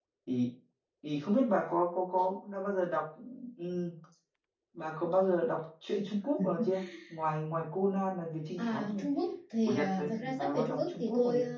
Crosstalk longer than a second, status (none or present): present